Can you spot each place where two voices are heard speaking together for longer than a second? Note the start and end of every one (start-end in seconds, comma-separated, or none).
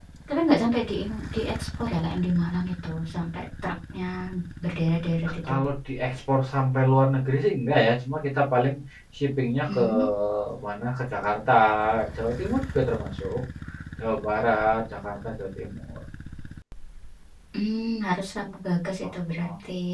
none